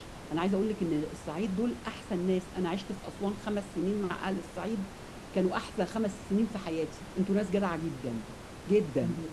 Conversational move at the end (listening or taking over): listening